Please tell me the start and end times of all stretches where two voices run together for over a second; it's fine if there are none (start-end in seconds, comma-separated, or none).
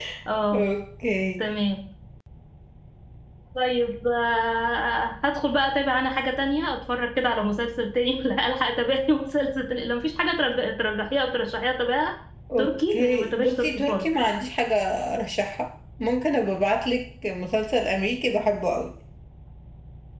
12.6-14.1